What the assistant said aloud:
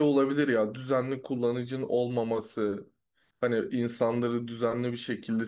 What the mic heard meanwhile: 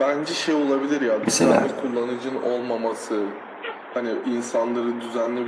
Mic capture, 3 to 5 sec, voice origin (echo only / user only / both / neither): echo only